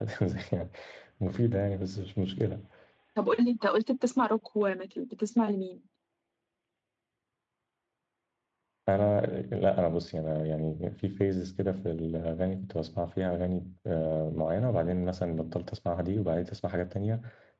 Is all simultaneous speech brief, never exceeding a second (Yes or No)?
Yes